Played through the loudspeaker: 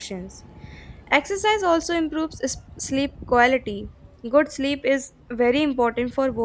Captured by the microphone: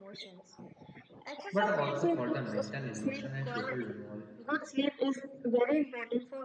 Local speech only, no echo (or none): but also for the mental, emotional, and social